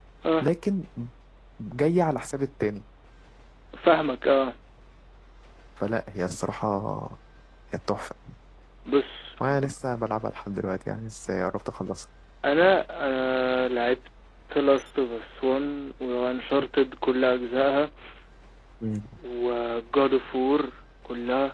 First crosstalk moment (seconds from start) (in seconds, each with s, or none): none